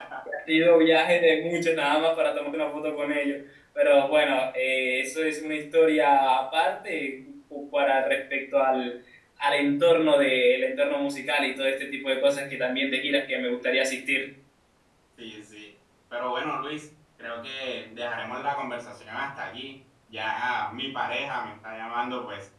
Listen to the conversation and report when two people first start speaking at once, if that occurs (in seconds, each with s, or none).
none